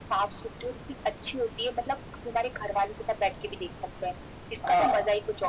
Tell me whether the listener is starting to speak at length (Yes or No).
Yes